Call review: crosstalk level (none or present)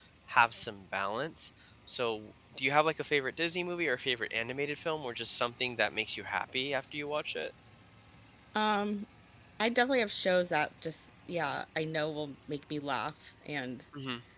none